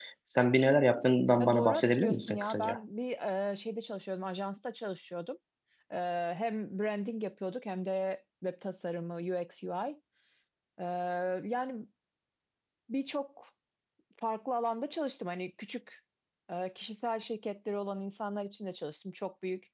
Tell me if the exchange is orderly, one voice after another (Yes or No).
No